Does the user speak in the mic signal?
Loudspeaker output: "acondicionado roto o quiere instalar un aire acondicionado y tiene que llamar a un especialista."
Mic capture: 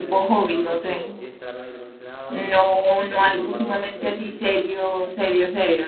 Yes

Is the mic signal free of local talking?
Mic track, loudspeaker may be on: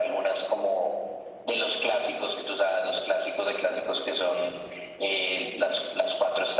Yes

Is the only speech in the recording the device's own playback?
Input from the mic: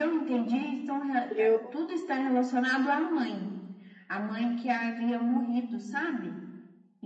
No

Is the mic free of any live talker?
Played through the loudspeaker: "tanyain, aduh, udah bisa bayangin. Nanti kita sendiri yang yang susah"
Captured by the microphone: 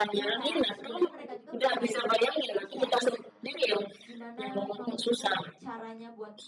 No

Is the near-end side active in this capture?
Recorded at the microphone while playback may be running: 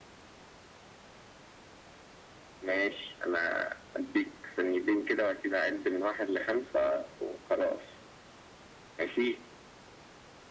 No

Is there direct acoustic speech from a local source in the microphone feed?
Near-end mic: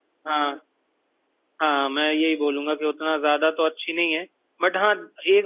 Yes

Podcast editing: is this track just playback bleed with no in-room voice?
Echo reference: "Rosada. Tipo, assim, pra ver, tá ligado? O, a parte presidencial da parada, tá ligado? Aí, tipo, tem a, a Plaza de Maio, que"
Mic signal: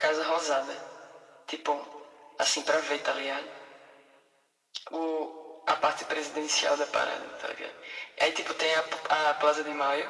Yes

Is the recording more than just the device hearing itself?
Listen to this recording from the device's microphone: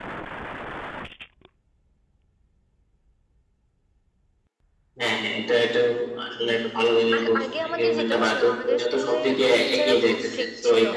Yes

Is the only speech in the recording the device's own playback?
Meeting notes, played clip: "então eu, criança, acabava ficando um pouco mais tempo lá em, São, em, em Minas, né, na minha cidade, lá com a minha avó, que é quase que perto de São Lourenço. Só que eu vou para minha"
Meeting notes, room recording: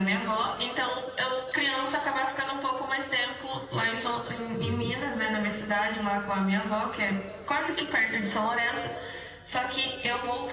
No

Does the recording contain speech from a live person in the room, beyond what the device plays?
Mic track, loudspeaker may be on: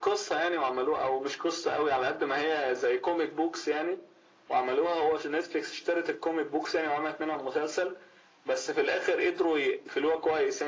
No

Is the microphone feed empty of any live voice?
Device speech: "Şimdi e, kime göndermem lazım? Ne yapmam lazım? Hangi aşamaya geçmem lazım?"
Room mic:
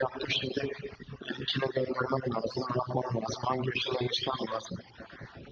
Yes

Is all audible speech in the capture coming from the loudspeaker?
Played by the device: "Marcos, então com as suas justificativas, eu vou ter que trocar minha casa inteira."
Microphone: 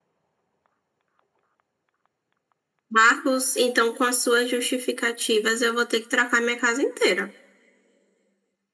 Yes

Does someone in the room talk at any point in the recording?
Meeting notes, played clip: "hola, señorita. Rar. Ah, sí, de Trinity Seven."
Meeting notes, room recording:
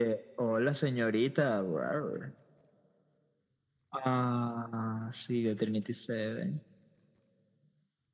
No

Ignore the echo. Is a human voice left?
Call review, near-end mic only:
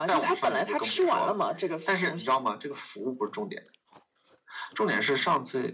No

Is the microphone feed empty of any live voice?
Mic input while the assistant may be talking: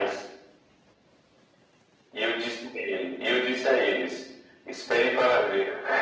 Yes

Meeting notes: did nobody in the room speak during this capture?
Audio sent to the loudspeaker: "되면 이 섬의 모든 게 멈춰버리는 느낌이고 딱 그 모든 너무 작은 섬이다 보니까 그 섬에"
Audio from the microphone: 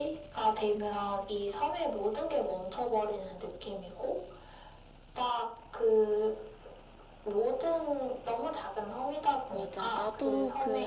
No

